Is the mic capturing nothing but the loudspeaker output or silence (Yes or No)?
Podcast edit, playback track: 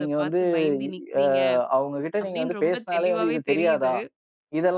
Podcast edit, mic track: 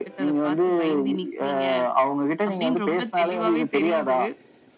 Yes